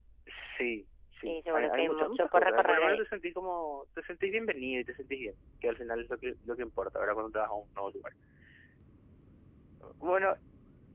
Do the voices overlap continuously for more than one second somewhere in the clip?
Yes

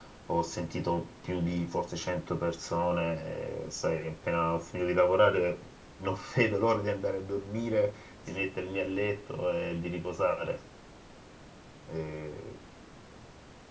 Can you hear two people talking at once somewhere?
No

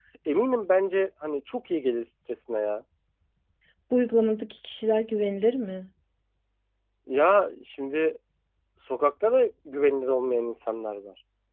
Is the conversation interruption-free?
Yes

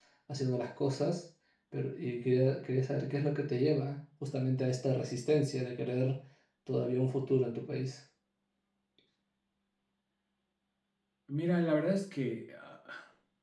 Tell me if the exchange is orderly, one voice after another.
Yes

